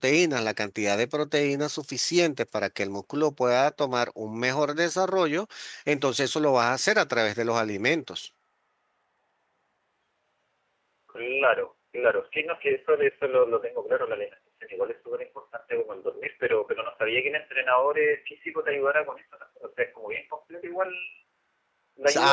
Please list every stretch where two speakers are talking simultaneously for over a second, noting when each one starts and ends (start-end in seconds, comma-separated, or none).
none